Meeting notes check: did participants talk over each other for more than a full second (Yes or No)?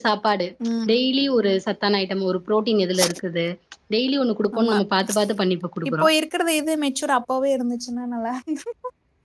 No